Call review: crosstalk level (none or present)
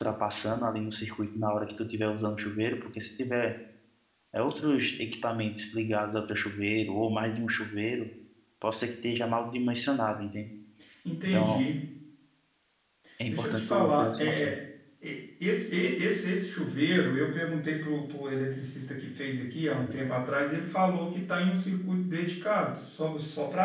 present